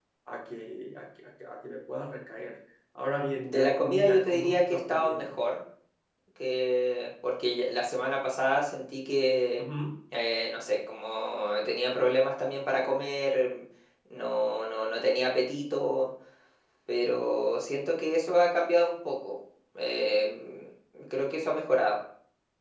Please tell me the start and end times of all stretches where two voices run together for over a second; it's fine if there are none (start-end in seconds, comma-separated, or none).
3.3-5.4